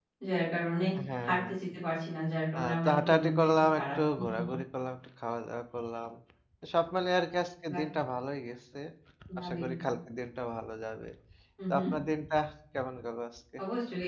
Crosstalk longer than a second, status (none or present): present